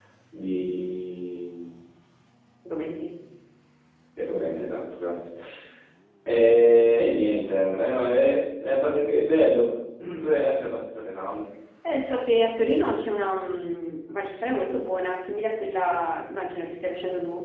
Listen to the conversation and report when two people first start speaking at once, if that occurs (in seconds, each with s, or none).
none